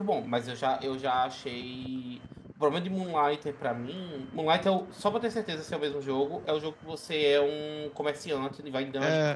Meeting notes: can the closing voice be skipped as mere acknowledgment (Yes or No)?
Yes